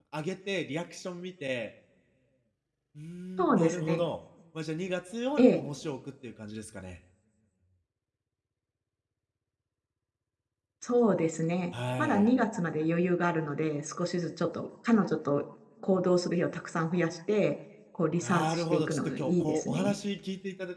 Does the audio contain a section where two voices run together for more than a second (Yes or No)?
Yes